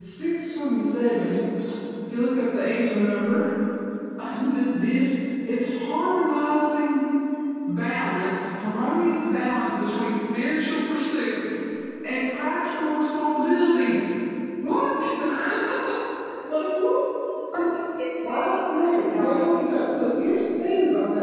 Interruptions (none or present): present